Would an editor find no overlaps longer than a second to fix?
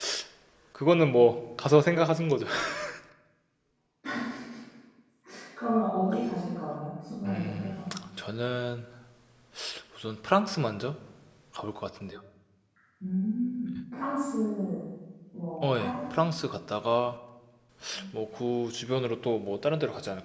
Yes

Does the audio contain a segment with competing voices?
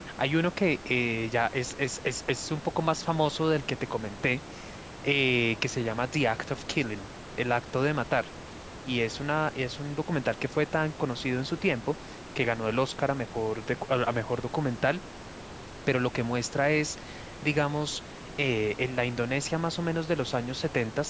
No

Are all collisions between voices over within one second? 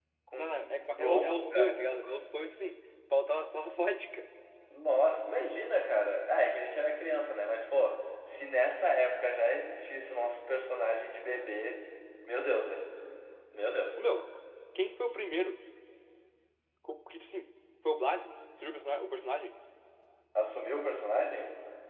No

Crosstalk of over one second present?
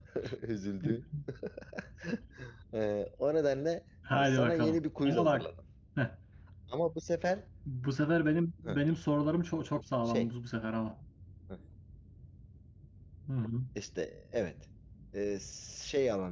Yes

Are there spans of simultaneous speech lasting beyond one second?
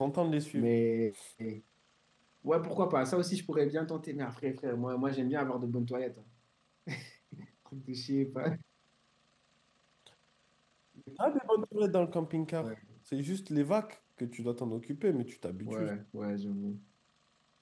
No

